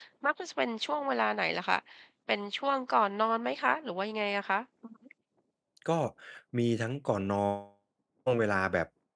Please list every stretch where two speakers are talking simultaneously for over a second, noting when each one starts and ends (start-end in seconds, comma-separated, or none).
none